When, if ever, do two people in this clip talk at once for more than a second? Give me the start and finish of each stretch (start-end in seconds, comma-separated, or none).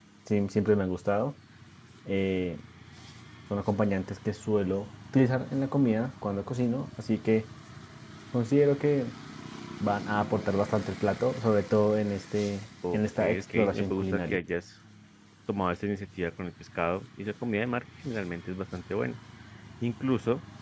12.9-14.4